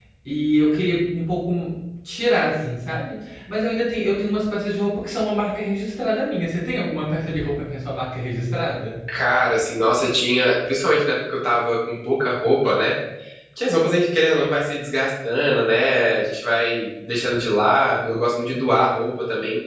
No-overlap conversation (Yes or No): Yes